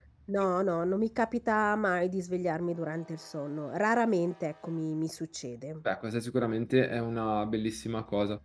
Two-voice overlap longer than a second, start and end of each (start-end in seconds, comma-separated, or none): none